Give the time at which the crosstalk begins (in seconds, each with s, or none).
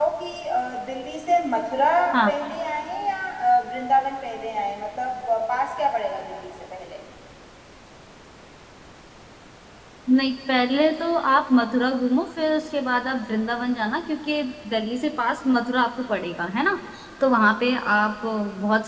none